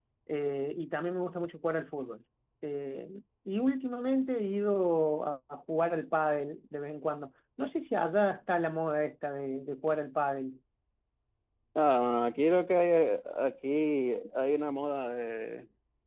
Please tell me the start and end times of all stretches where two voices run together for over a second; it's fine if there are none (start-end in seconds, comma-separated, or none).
none